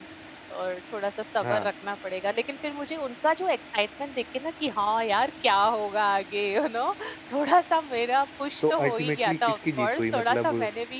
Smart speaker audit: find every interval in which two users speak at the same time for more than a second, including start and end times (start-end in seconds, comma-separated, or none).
8.7-10.5